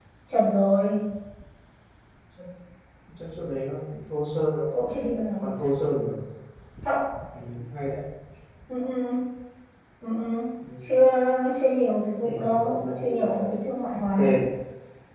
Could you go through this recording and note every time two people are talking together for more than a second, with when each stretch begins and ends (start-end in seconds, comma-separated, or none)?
12.2-13.5